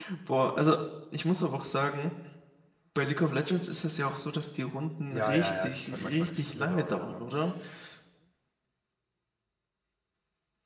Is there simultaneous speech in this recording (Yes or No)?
Yes